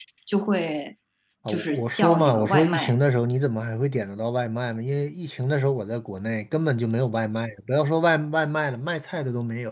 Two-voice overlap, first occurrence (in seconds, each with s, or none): 1.5 s